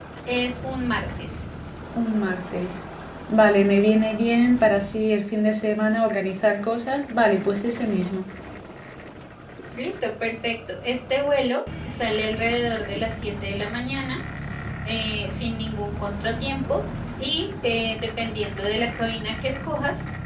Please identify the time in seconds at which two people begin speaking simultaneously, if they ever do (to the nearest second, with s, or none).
none